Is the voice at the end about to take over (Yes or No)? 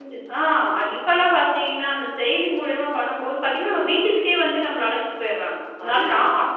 No